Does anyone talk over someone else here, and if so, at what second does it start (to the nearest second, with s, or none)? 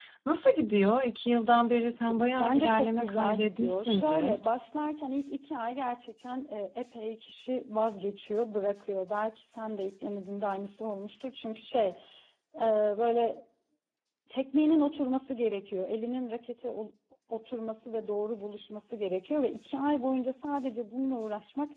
2 s